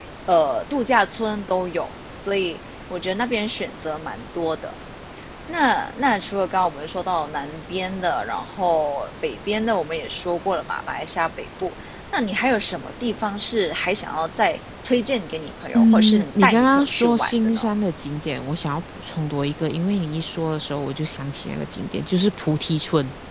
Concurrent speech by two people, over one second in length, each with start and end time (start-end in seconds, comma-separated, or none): 15.7-17.6